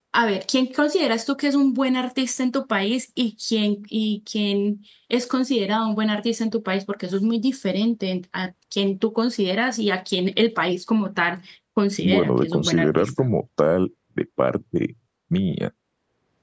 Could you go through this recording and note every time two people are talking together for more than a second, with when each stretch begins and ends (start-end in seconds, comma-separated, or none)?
12.0-13.3